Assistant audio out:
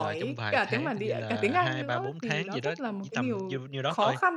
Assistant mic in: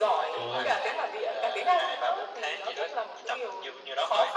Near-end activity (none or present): present